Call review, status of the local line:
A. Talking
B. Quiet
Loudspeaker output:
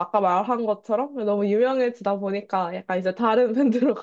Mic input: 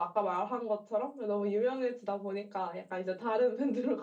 B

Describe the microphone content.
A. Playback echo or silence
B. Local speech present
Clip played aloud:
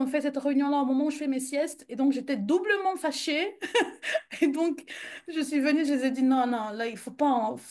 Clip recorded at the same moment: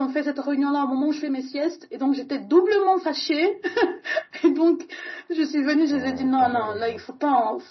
B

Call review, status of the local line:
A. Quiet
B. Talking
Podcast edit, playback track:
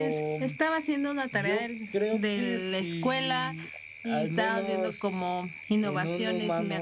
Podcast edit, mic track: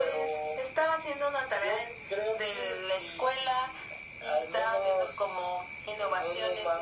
A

